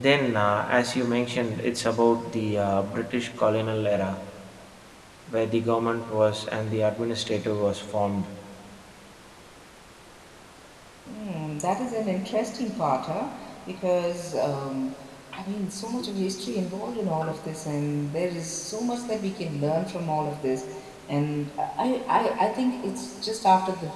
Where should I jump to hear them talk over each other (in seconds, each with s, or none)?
none